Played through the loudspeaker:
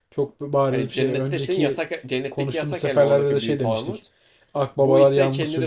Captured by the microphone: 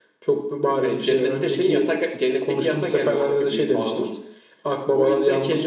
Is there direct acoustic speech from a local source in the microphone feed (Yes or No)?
No